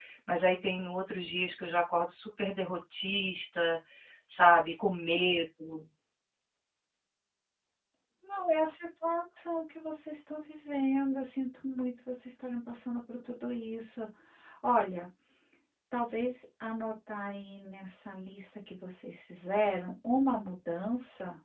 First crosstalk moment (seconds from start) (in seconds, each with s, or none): none